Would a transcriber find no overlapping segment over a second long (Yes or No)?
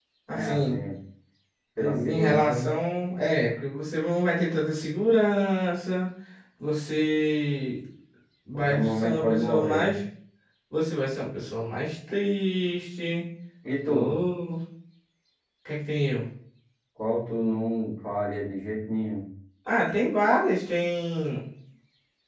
No